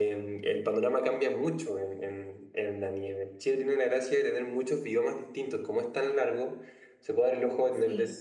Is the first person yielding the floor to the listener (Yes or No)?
No